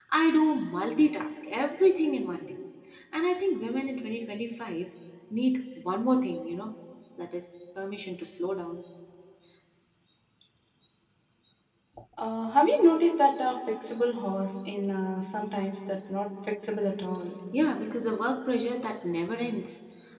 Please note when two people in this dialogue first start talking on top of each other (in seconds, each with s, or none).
none